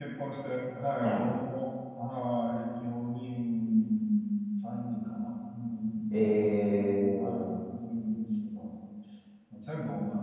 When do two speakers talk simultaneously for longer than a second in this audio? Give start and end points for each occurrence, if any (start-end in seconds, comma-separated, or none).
6.1-7.5